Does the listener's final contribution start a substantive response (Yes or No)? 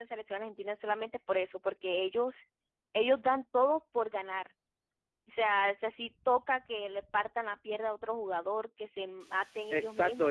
Yes